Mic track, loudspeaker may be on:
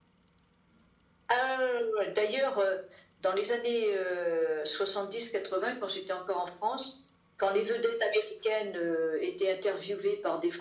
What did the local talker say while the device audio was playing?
none

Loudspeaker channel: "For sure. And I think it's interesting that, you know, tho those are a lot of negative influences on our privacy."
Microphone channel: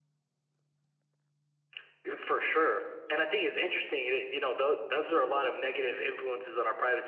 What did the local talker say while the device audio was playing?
none

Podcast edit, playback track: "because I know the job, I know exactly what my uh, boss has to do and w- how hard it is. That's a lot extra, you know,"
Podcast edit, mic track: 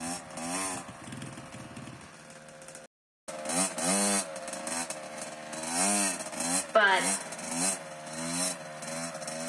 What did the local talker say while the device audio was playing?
But

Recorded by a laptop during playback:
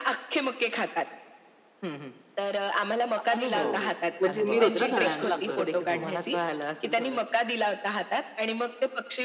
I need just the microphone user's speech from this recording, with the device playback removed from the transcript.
हो, हो. कोथिंबीर होते ना धण्यांची. बरोबर. हो.

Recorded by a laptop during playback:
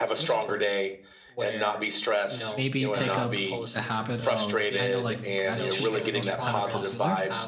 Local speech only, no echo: maybe take up the habit of I know, like, gratitude journals are kind of popular,

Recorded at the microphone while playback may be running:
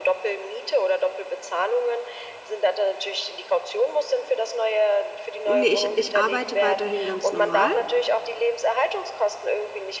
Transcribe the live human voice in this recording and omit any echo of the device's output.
Ne, ich ich arbeite weiterhin ganz normal.

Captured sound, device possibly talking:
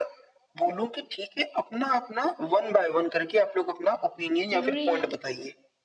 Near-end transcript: ज़रूरी है

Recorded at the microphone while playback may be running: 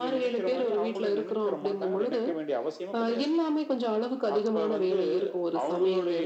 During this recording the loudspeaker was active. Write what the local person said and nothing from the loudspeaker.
none

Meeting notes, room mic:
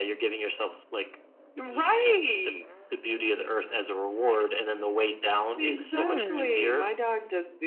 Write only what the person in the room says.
Mm.

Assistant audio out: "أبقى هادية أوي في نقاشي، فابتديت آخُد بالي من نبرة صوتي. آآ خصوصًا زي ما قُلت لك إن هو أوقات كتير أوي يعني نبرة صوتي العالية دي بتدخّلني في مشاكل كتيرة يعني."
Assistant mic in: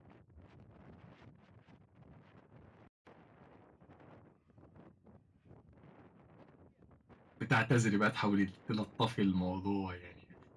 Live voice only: بتعتذري بقى تحاولي تلطّفي الموضوع يعني.

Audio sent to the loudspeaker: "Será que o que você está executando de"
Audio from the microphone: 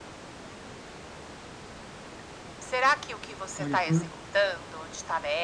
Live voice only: Olha, por

